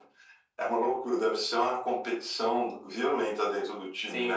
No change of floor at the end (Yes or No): No